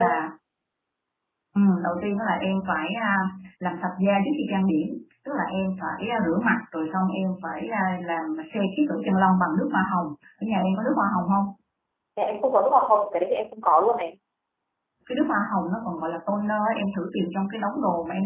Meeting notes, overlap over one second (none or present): none